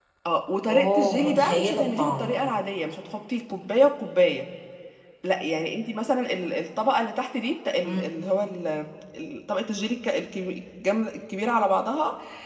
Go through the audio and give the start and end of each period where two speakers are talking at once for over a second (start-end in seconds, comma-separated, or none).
0.7-2.3